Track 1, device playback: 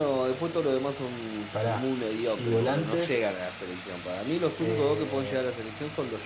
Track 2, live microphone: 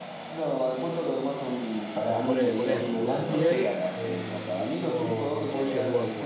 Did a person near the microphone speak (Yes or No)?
Yes